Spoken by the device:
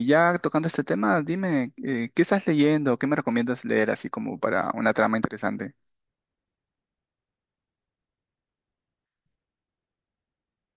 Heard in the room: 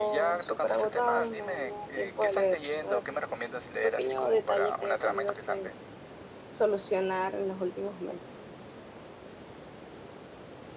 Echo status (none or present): present